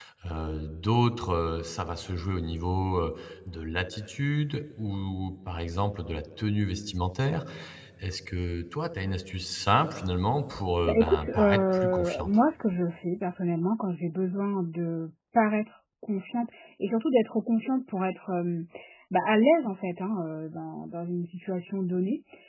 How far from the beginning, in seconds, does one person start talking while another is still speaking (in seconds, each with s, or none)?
10.9 s